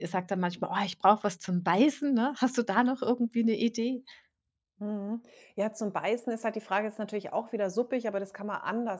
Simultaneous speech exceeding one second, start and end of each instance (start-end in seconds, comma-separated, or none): none